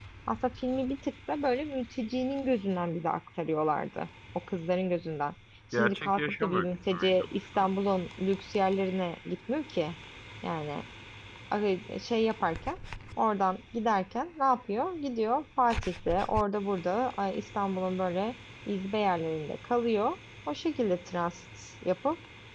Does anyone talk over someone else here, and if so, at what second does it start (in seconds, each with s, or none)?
5.7 s